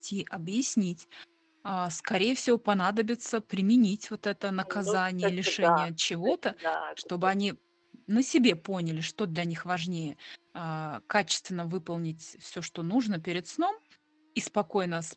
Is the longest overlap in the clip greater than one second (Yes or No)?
Yes